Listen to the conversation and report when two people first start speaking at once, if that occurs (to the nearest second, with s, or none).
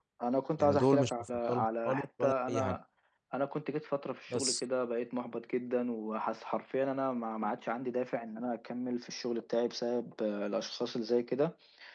1 s